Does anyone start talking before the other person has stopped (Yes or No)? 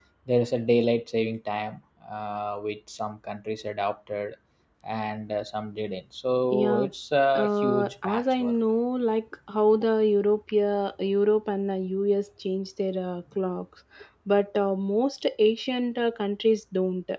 Yes